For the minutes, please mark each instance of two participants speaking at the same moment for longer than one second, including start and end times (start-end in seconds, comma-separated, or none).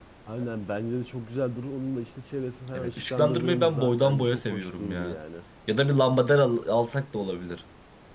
2.7-5.2